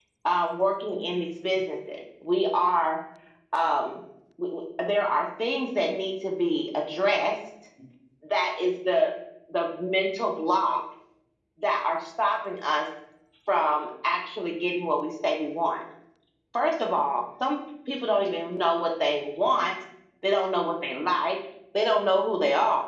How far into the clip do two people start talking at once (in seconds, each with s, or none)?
none